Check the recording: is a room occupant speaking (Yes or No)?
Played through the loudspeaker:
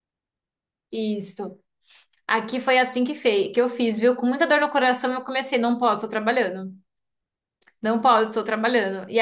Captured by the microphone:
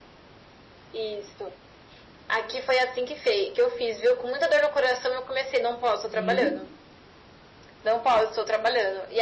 Yes